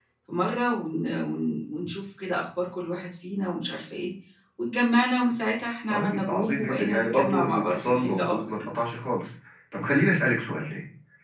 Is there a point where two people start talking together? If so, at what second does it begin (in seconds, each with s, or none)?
5.9 s